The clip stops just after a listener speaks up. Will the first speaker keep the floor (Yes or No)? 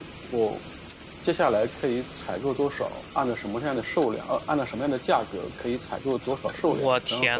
No